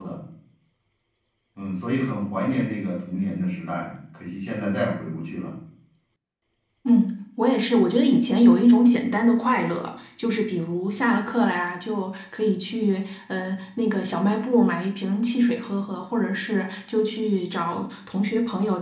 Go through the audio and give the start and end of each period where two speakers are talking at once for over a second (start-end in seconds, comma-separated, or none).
none